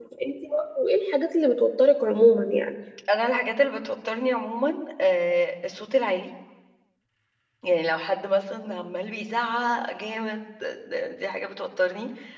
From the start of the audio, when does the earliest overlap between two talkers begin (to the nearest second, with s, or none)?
none